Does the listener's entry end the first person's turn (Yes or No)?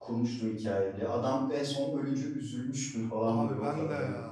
Yes